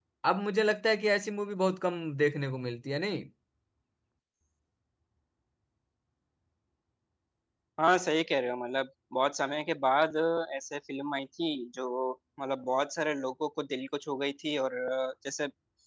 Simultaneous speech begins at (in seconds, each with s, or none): none